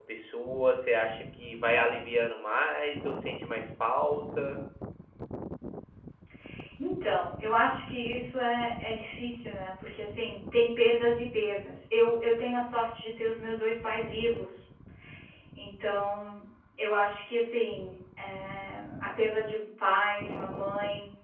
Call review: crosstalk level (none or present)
none